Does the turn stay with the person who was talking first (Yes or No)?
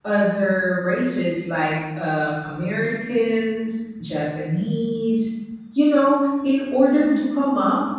Yes